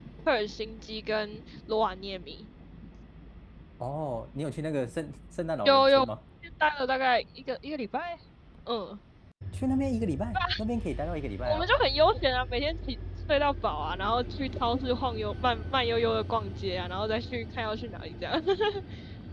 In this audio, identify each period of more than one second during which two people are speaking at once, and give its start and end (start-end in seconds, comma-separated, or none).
none